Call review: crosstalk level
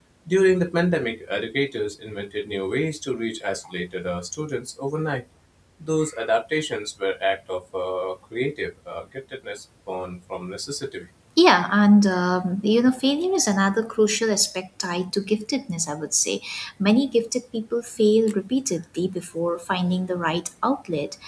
none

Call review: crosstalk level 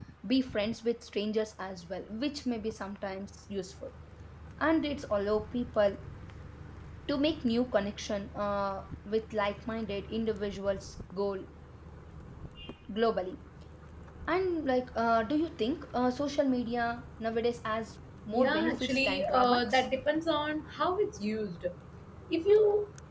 present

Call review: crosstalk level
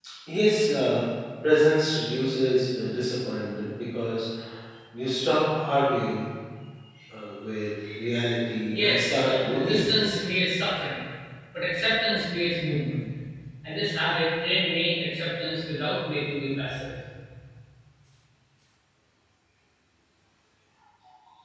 present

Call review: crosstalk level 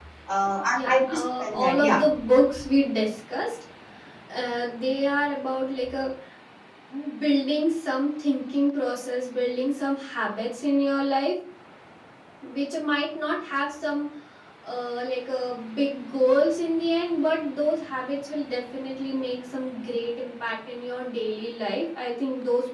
present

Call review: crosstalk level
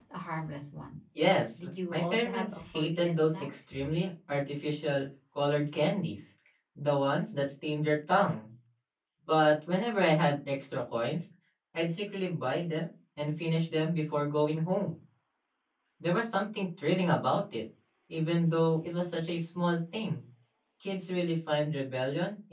present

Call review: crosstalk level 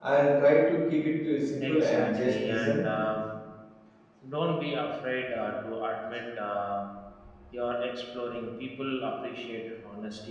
present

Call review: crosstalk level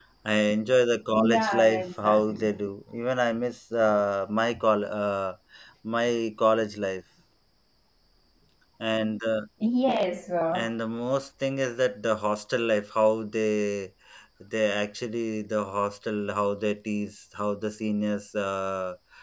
present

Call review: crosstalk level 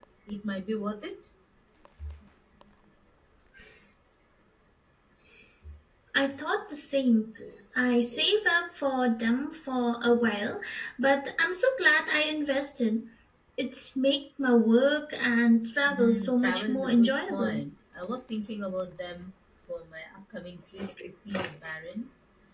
present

